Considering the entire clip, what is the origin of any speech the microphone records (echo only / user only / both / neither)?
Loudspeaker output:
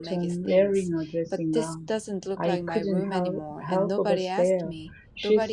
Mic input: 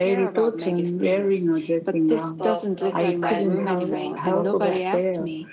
both